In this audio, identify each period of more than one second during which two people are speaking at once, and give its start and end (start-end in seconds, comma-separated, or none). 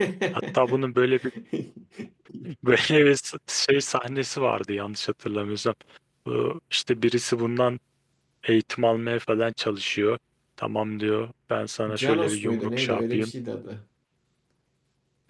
11.9-13.3